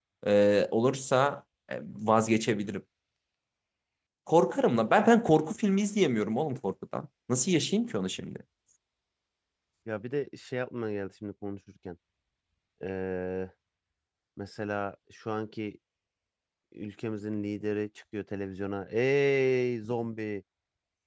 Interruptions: none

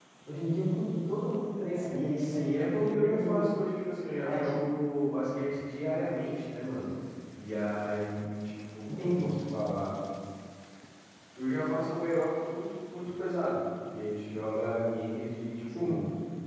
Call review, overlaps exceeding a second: present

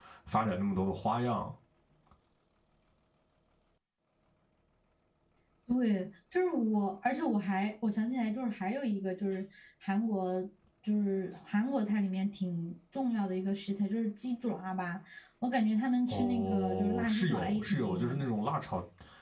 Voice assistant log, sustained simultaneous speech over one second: present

